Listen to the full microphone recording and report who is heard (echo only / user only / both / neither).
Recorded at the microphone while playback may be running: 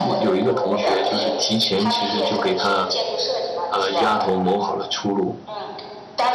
both